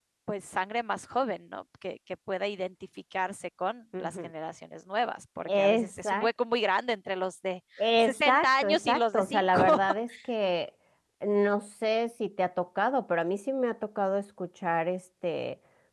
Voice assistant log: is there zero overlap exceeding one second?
No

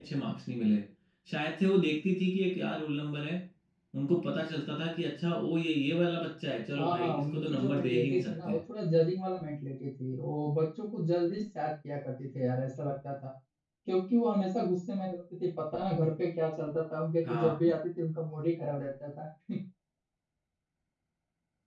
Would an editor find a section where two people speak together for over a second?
Yes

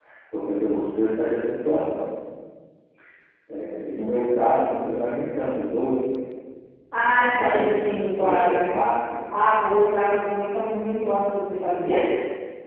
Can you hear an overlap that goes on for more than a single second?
Yes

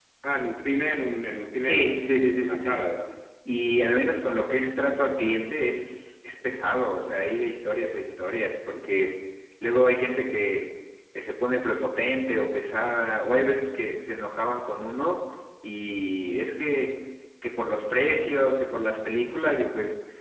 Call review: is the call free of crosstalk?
No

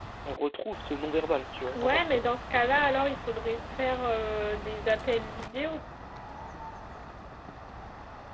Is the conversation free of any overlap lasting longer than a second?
Yes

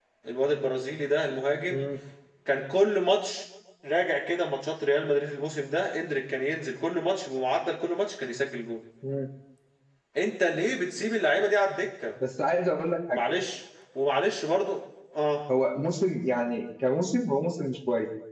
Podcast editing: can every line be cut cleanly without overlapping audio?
Yes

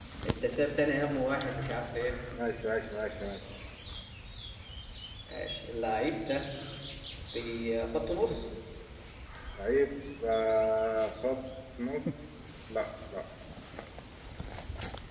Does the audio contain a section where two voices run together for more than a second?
No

